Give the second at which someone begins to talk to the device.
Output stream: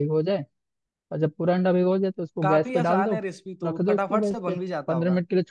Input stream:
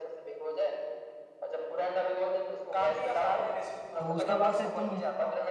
4 s

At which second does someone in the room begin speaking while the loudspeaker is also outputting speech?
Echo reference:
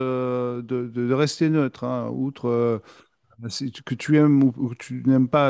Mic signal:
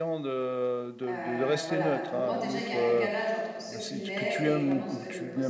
1 s

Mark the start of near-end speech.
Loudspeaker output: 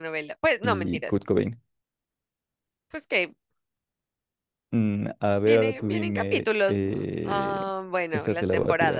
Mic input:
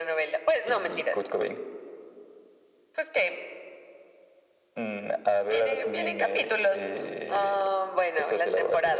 none

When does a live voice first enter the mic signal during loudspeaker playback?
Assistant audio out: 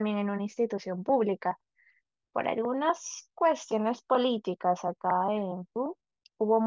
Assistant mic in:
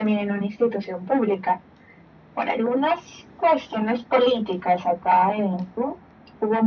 none

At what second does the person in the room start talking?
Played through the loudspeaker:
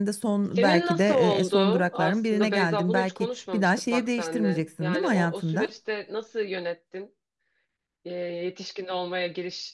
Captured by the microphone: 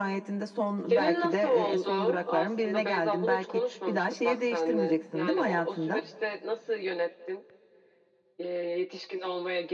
none

